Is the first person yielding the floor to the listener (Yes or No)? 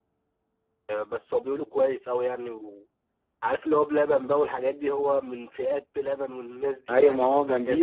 Yes